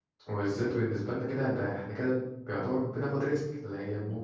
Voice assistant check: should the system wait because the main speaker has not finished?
Yes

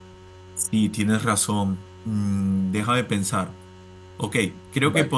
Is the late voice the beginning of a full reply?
No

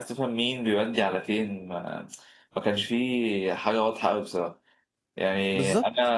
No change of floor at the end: Yes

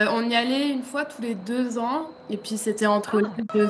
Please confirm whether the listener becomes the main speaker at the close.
No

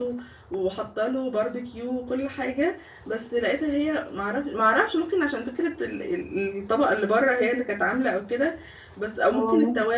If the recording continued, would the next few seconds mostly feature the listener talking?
No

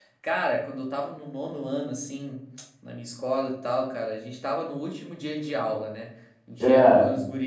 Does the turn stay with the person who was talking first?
Yes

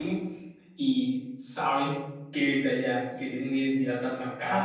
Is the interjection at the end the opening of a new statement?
Yes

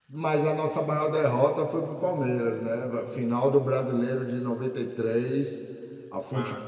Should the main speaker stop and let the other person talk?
No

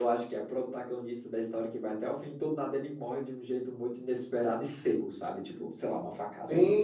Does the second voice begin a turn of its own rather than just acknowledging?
No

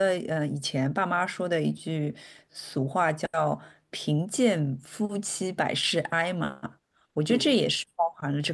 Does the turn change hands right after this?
No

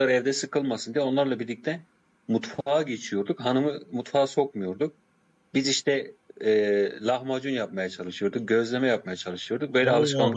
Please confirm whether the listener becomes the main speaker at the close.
Yes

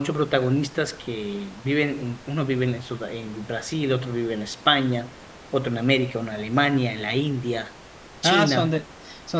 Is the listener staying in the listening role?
No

